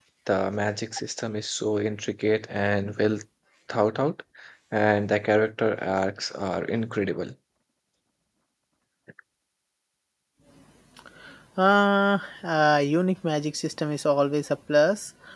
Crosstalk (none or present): none